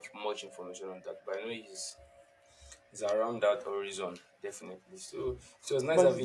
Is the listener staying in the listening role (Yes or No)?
No